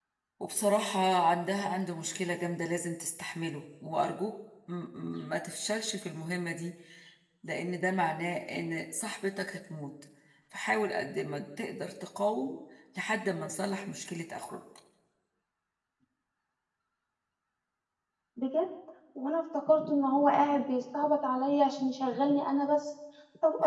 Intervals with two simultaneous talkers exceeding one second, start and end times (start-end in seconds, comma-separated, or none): none